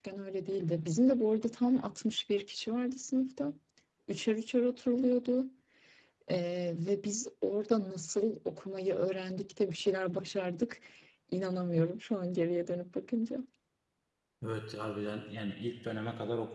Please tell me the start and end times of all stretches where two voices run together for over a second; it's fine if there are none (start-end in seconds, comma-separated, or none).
none